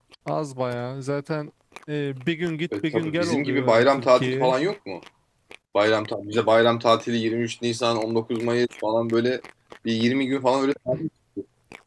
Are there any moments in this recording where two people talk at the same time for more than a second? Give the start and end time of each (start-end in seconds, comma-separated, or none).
2.9-4.5